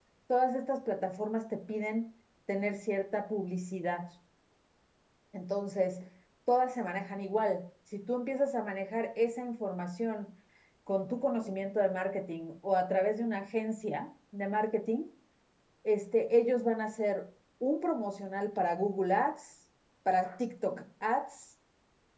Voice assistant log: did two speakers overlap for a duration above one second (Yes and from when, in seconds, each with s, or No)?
No